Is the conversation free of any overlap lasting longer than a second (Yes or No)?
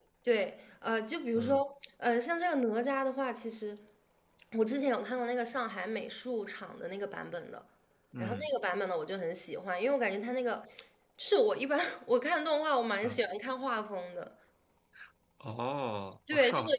Yes